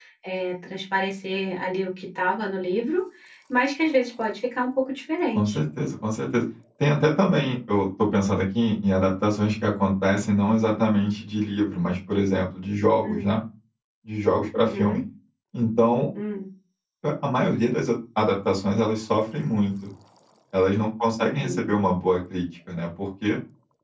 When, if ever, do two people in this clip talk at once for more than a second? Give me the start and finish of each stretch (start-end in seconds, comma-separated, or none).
none